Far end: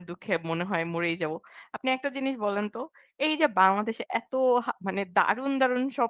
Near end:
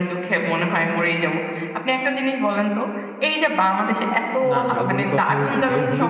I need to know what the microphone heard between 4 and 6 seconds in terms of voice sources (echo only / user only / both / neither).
both